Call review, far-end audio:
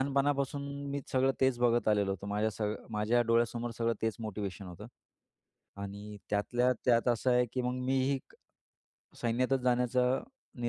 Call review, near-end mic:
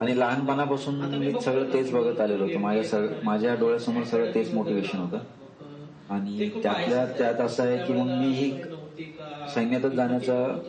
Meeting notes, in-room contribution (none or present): present